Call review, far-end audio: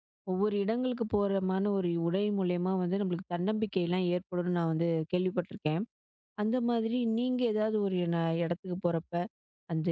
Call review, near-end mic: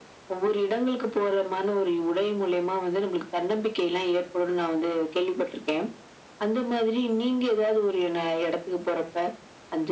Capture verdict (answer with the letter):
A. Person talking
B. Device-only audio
B